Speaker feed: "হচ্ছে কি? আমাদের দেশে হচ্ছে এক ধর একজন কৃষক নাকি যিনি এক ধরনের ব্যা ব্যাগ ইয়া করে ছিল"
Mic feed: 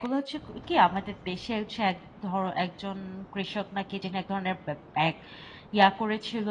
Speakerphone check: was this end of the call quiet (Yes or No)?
Yes